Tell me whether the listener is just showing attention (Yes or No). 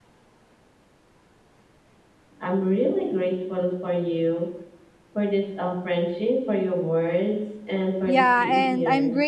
No